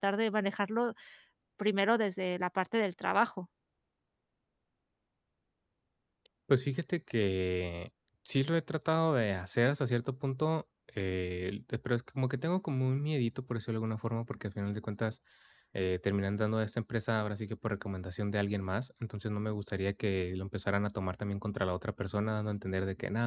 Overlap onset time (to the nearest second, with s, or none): none